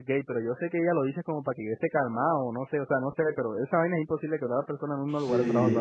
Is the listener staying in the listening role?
No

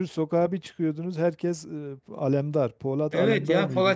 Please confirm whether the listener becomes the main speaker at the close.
Yes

